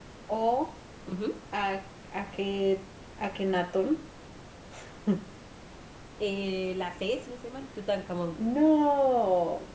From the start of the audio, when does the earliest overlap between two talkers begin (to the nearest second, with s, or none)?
none